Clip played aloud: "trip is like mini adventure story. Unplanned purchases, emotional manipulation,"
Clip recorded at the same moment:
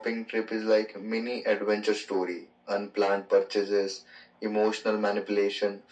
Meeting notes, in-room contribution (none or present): none